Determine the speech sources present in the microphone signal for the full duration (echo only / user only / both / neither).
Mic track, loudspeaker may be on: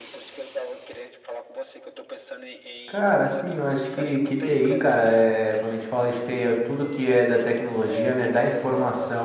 both